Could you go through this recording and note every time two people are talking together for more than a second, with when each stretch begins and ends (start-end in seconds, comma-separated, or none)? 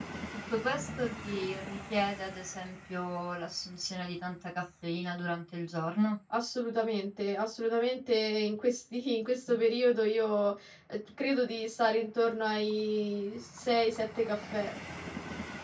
none